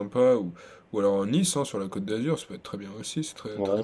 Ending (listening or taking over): taking over